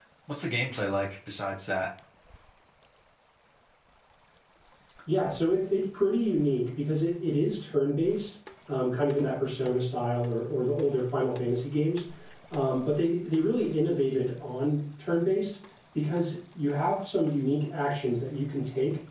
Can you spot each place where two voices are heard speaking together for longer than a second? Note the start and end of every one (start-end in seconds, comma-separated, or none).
none